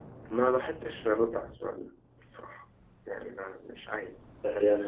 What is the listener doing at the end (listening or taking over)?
taking over